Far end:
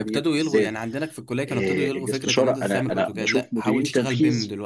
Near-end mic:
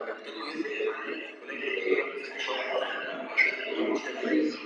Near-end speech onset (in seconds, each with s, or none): none